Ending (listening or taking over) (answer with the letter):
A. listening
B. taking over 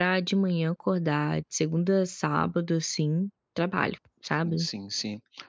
B